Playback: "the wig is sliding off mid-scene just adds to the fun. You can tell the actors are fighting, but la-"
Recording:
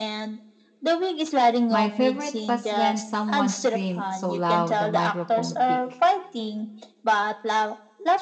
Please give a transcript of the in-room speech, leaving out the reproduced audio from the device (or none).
My favorite was when someone screamed so loud the microphone picked.